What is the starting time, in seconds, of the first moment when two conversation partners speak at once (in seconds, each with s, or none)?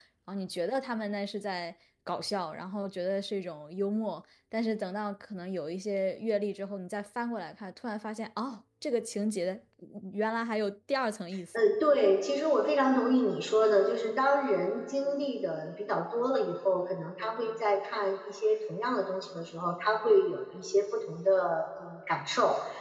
none